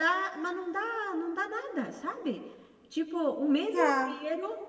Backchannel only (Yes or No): Yes